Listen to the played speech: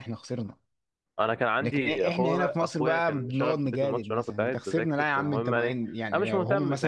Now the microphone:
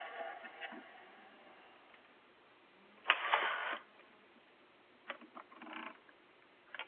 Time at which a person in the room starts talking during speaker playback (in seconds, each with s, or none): none